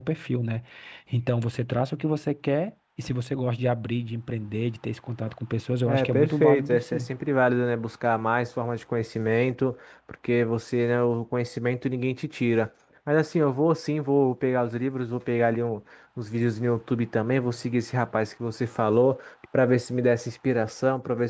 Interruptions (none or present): present